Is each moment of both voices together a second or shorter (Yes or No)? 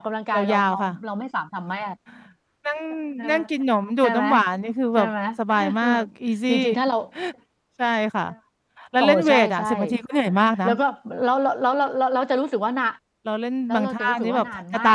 No